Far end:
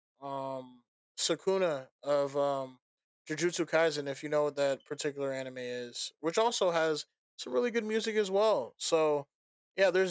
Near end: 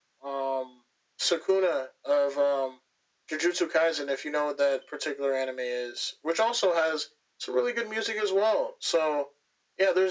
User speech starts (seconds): none

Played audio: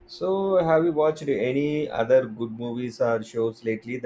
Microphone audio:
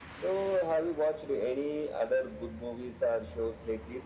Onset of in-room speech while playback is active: none

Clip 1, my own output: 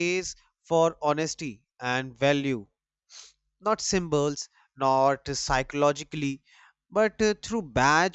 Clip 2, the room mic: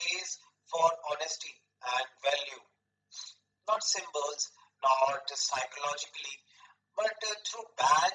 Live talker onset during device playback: none

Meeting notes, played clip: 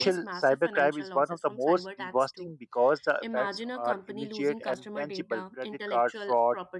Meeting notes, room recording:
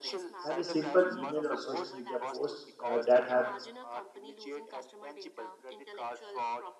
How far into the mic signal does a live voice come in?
0 s

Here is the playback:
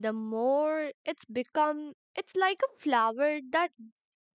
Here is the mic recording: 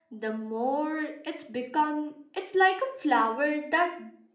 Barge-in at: none

